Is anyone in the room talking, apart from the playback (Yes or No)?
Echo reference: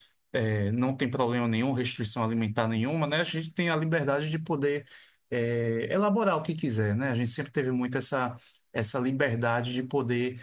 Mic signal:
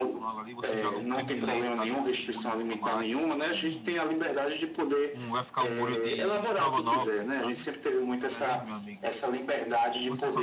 Yes